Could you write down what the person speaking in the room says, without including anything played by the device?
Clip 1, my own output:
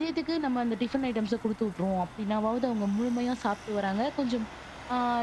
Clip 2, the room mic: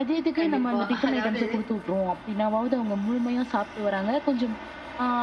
கண்டிப்பா. அதாவது

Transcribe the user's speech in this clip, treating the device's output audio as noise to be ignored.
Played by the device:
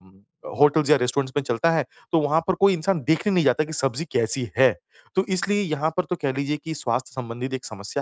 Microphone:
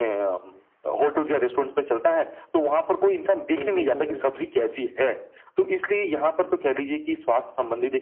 हुँ, हुँ, हुँ, हुँ, हुँ।

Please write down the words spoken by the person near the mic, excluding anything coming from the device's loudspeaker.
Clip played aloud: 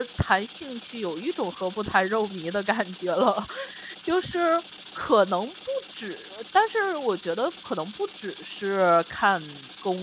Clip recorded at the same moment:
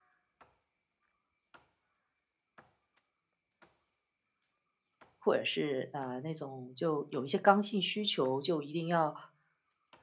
或者是呃那种就有一些刚性需求，就一定要

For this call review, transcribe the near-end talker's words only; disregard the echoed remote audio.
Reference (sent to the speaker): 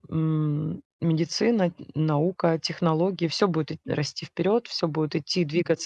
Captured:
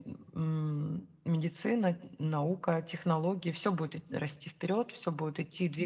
none

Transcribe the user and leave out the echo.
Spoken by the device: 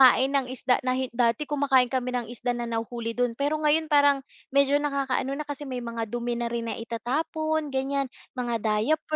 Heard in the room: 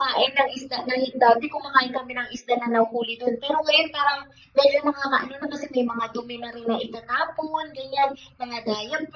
none

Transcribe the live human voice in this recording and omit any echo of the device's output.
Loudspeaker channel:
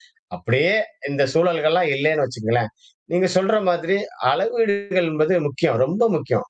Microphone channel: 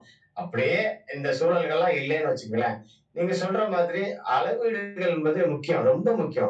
none

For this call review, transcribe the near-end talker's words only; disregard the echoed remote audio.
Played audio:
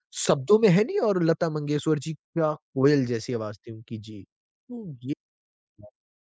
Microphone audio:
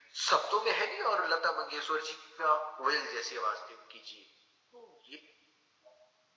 none

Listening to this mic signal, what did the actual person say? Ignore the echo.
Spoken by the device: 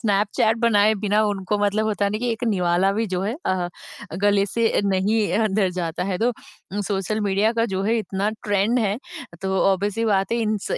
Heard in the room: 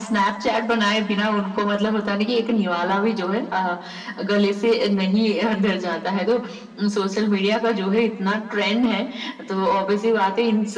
none

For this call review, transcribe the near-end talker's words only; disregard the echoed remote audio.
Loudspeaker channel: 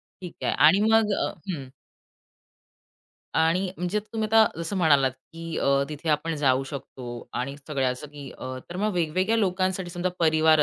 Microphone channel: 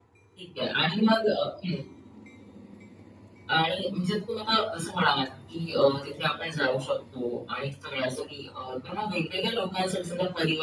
none

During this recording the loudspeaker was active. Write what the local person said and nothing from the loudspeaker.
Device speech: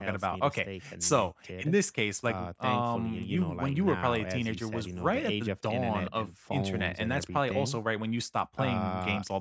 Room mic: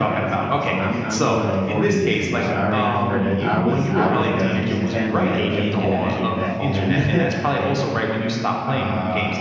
Oh, I'm I'm going on 40 this year, so I remember that I was I was the Nintendo and the Game Boy kid back then.

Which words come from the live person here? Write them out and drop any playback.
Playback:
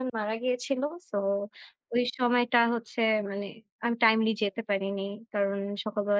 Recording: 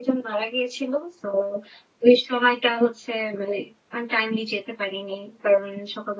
none

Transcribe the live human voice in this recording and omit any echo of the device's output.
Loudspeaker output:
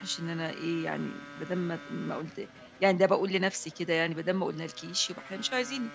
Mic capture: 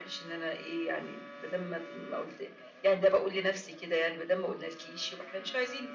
none

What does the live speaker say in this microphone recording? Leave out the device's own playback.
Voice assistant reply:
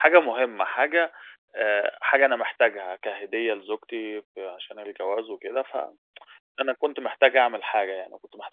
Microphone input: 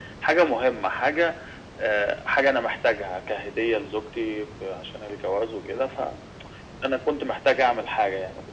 none

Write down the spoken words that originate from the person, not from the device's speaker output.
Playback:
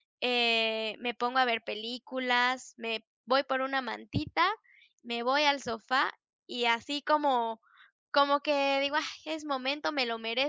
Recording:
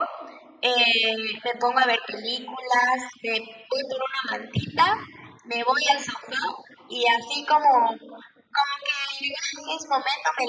none

